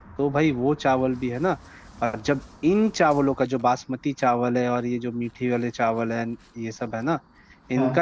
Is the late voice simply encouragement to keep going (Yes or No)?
Yes